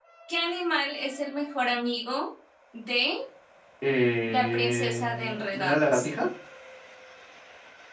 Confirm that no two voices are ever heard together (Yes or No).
No